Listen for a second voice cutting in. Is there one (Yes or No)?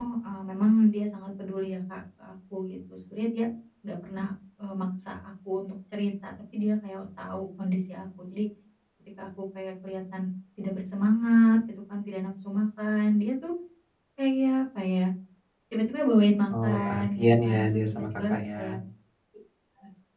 Yes